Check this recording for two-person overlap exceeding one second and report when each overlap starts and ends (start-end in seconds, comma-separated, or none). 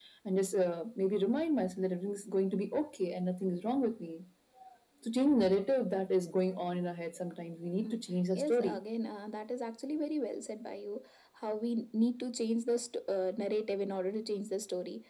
none